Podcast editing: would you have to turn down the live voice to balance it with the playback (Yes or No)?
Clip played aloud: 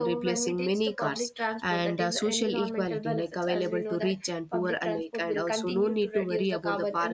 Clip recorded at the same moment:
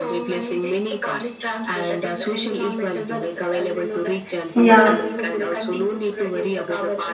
Yes